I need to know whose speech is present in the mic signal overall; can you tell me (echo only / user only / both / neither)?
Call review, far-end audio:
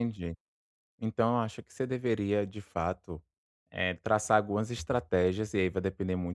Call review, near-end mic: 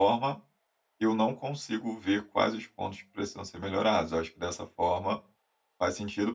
user only